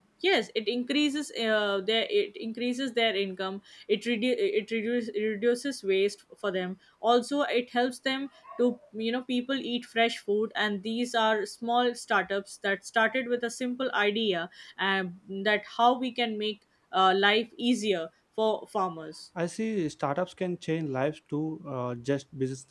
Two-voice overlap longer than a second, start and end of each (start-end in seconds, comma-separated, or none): none